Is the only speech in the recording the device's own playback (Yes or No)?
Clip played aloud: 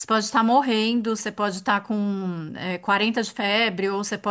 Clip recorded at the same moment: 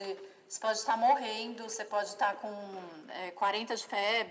Yes